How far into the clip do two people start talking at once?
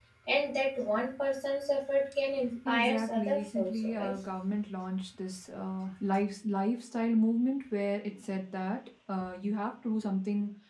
2.6 s

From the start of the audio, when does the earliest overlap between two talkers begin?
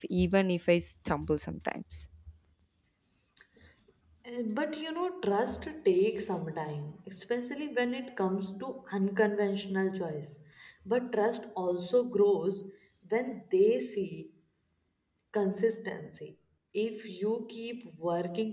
none

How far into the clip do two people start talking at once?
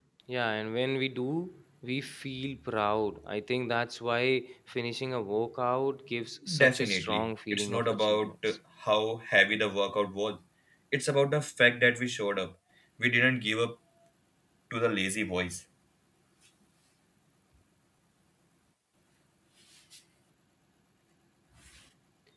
6.5 s

